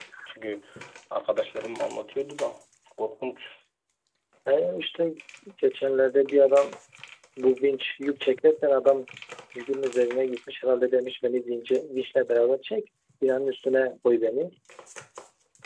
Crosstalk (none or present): none